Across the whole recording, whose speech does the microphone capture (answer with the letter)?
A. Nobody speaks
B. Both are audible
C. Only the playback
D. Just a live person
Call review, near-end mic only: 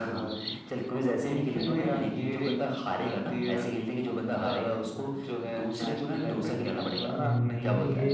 B